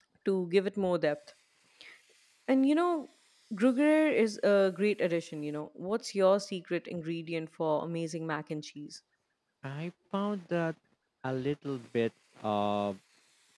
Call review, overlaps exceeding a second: none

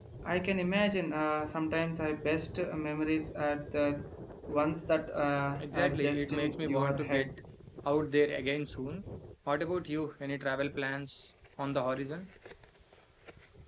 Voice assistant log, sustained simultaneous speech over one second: present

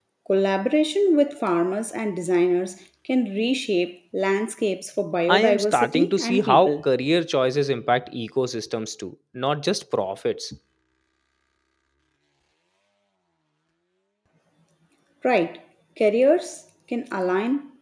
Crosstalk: present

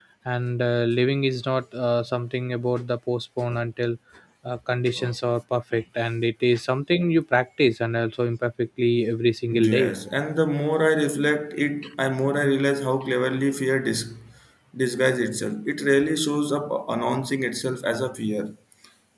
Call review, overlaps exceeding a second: none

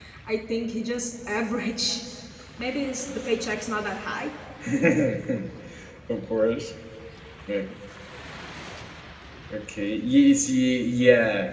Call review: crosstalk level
none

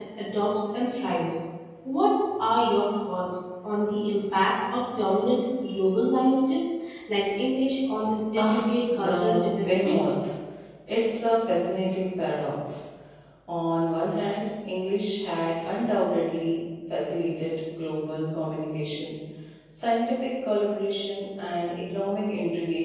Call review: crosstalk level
present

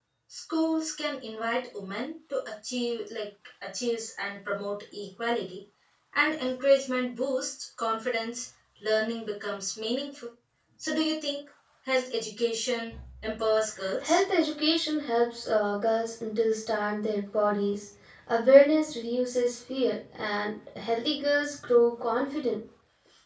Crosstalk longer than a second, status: none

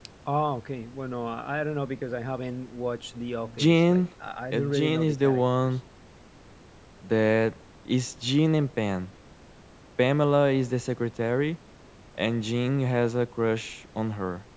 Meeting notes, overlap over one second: present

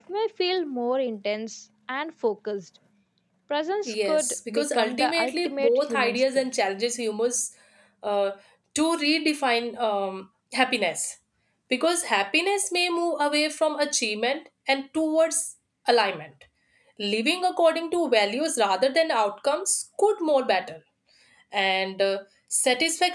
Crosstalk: present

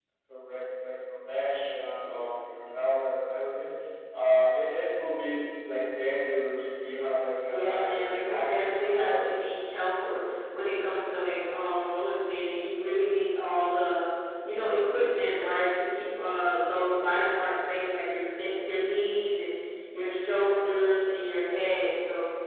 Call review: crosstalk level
present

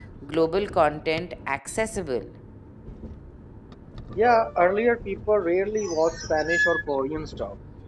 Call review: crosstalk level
none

